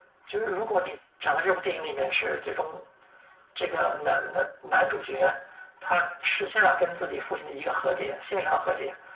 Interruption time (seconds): none

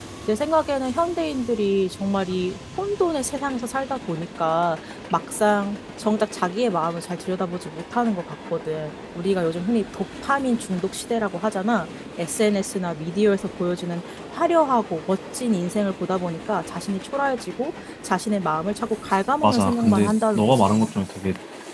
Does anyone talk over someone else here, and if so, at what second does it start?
19.4 s

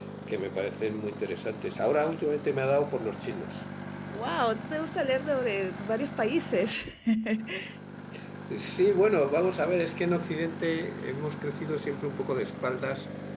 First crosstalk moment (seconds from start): none

